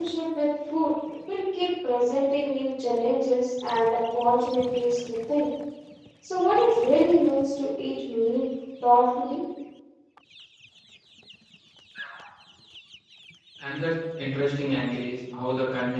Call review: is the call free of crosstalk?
Yes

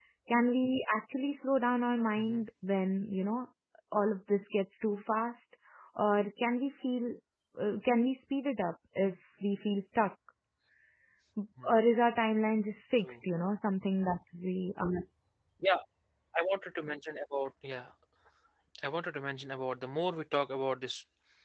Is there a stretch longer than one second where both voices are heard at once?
No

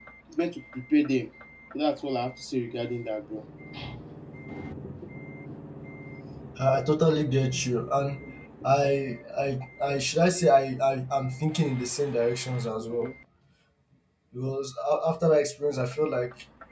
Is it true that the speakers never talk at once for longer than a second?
Yes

